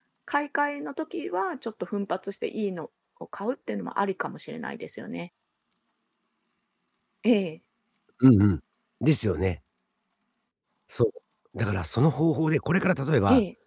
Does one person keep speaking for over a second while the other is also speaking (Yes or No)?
No